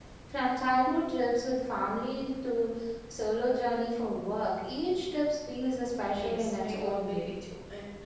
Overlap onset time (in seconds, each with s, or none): 6.0 s